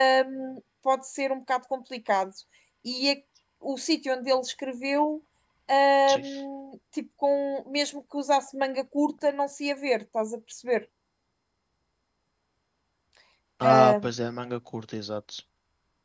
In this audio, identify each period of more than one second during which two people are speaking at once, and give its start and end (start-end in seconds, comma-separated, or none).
none